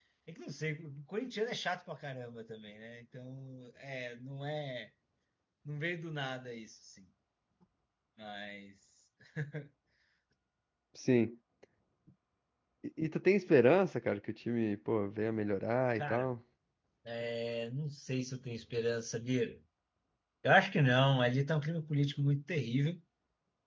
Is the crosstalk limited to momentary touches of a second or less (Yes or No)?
Yes